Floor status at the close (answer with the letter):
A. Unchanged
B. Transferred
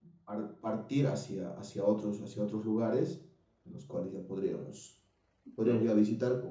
A